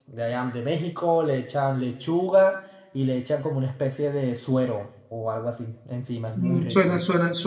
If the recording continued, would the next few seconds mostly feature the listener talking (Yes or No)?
Yes